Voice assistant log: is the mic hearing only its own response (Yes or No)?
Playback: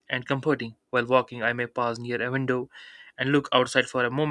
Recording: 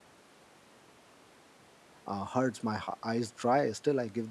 No